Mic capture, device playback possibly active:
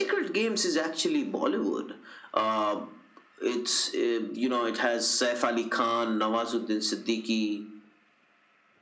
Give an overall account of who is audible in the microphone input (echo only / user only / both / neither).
echo only